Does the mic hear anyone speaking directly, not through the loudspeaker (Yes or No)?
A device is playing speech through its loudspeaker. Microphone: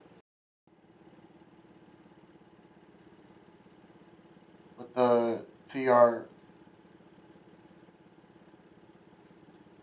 Yes